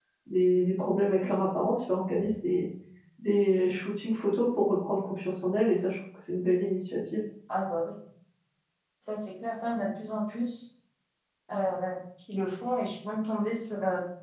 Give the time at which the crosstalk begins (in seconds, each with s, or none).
none